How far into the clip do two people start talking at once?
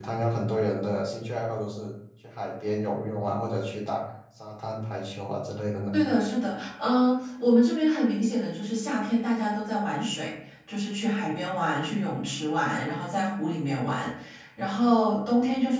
none

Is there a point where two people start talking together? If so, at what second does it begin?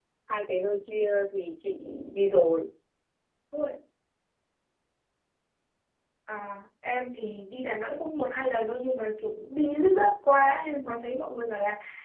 none

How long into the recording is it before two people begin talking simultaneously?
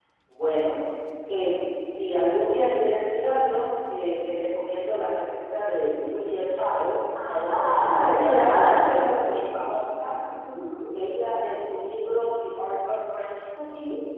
7 s

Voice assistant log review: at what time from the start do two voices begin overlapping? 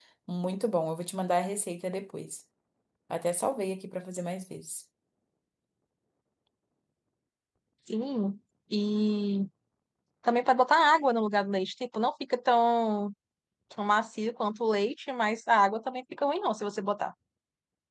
none

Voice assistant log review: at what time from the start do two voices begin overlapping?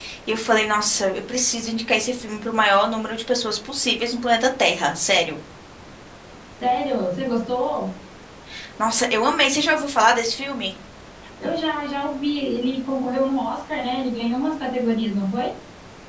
none

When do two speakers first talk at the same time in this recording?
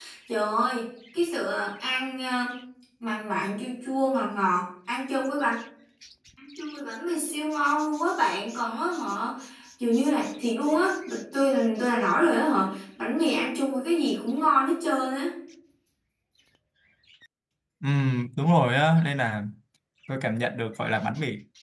none

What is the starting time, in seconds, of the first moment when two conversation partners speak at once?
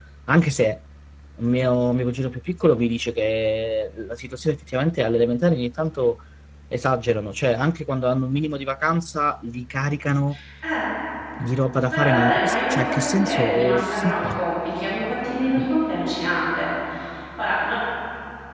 12 s

